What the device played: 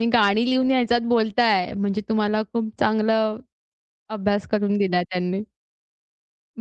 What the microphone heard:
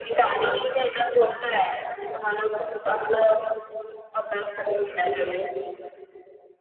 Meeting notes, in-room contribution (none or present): none